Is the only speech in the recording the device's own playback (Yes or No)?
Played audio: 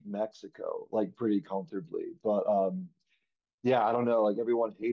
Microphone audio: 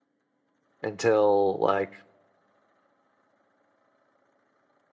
No